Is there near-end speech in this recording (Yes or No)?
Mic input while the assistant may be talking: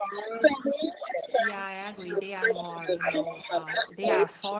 Yes